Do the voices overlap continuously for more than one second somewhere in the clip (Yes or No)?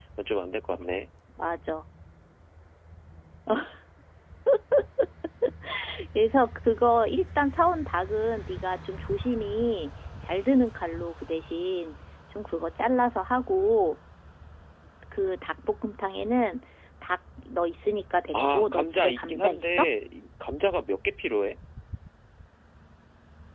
Yes